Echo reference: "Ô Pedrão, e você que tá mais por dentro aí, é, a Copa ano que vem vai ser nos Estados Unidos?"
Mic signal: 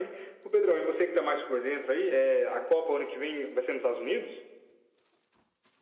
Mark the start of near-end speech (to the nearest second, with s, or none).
none